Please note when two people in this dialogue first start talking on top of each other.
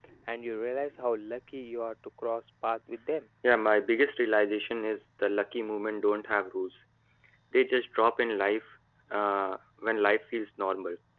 none

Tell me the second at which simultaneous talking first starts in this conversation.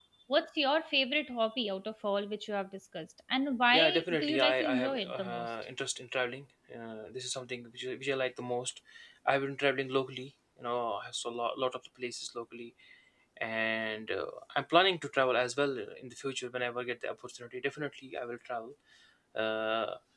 4 s

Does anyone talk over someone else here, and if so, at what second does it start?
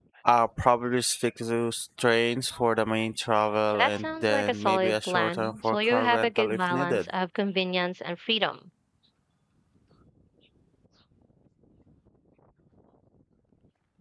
4 s

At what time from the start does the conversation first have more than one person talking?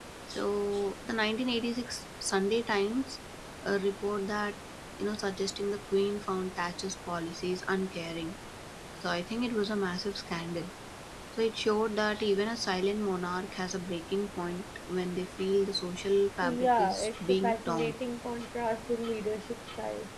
16 s

